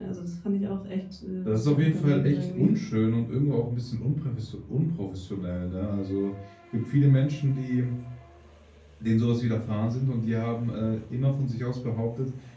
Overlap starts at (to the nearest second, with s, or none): 1 s